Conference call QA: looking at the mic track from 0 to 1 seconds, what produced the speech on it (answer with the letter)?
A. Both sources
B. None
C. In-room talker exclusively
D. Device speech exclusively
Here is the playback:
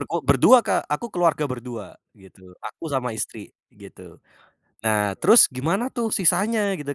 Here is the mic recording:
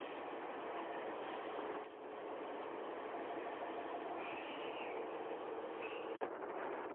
B